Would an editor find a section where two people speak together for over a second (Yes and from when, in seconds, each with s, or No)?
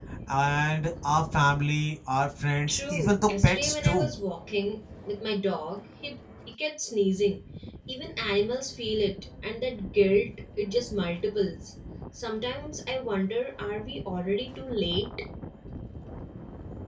Yes, from 2.7 s